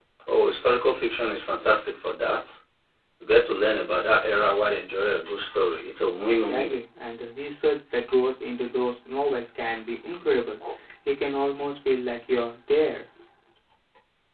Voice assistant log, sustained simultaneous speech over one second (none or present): none